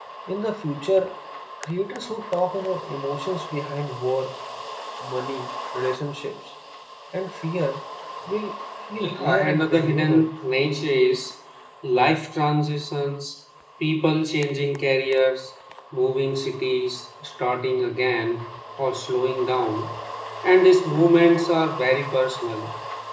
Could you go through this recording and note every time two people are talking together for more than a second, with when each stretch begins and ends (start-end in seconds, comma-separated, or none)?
9.0-10.3